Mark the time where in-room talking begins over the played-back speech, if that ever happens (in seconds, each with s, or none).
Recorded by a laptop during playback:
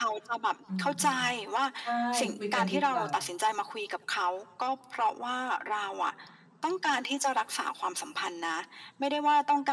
0.7 s